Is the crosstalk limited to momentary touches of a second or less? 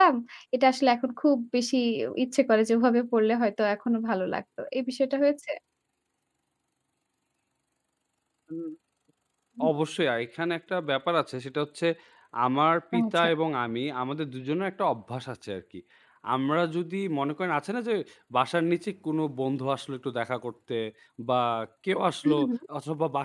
Yes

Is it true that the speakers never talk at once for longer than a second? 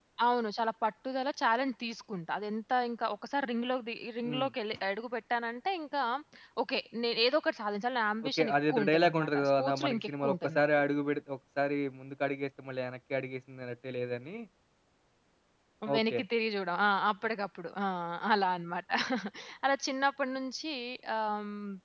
No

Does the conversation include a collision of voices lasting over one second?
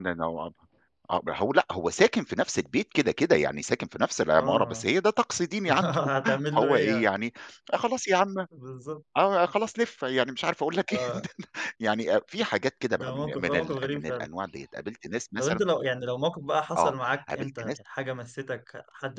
Yes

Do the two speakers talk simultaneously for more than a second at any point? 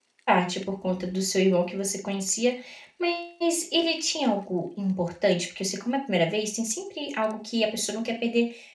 No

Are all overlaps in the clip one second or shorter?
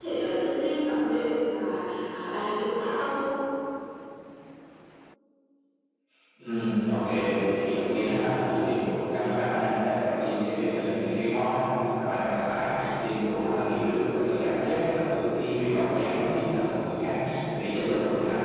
Yes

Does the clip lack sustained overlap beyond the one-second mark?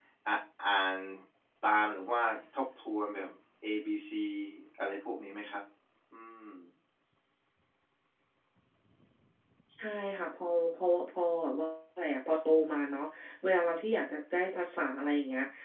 Yes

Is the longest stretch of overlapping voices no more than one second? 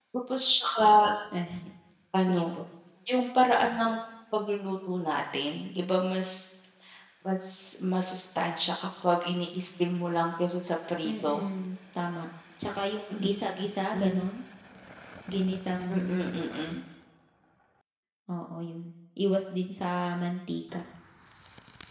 Yes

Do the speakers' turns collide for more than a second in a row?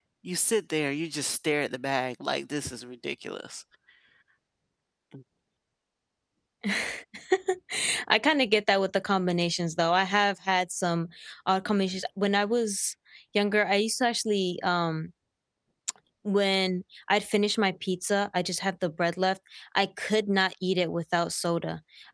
No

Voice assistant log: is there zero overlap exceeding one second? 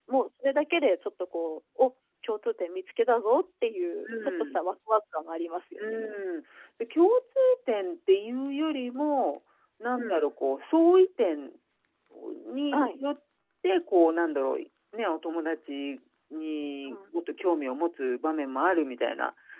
Yes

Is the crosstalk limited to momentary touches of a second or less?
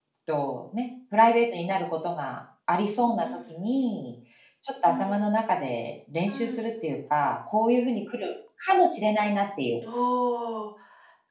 Yes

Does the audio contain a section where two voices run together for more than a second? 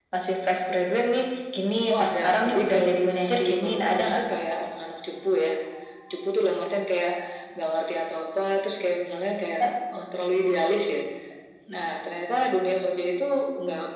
Yes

